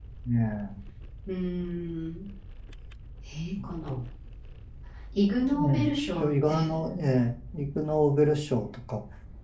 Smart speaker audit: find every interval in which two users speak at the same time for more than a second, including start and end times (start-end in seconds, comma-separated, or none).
5.5-6.8